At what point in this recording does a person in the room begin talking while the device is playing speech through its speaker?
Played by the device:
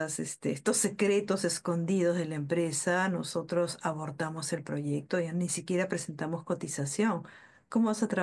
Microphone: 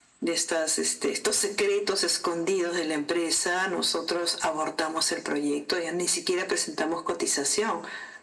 none

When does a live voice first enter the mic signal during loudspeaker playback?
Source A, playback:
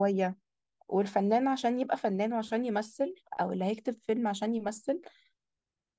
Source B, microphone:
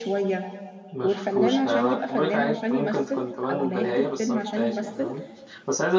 0.9 s

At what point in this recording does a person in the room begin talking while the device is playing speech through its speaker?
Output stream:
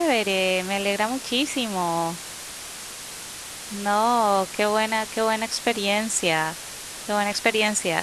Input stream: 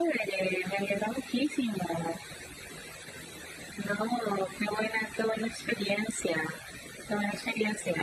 none

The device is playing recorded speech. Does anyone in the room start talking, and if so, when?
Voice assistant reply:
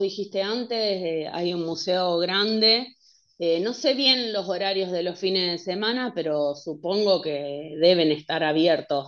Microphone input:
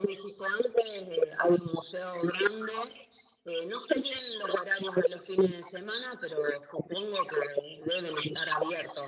none

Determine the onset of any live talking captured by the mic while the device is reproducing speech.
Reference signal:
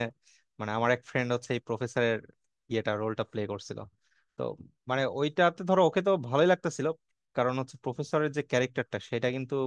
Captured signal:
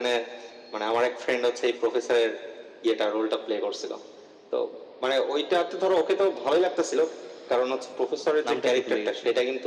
8.4 s

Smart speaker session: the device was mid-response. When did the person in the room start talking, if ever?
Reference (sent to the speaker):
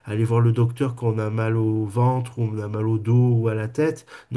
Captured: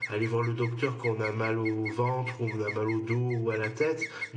none

